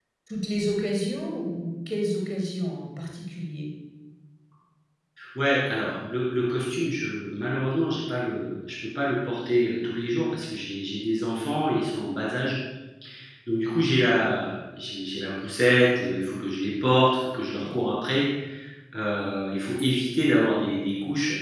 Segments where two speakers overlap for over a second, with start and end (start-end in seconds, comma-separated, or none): none